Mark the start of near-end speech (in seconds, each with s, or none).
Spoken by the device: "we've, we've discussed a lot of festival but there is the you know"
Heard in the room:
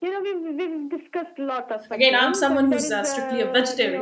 1.9 s